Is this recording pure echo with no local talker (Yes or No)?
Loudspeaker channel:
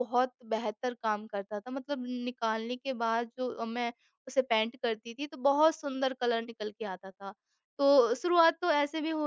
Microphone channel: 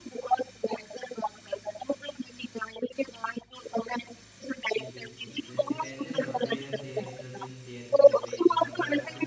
No